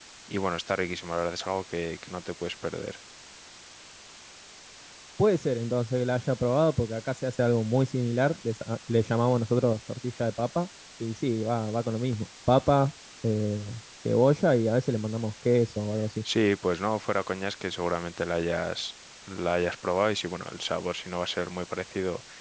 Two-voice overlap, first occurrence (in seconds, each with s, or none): none